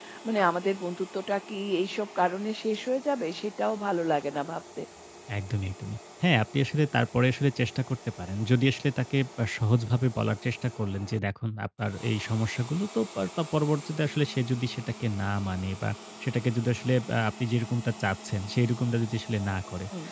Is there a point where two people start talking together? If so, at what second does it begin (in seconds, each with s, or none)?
none